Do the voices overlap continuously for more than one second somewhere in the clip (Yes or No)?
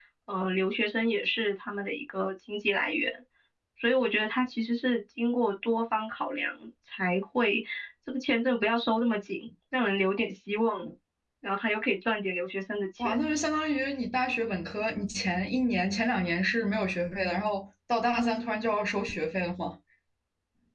No